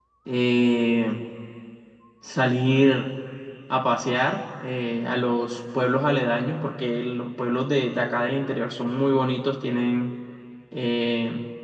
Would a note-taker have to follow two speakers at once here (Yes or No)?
No